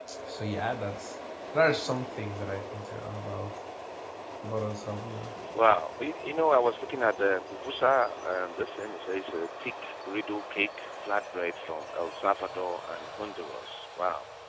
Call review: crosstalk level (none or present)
none